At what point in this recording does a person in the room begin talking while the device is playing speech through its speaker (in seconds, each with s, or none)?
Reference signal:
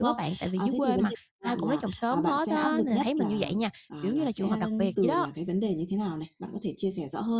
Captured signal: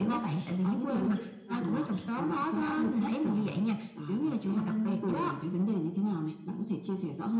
none